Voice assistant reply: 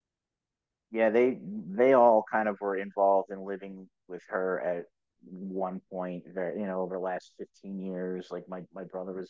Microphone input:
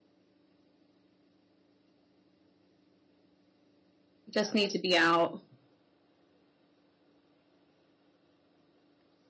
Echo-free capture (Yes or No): Yes